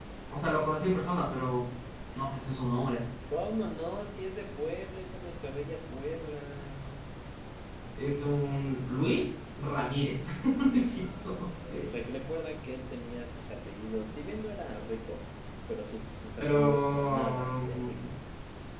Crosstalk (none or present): present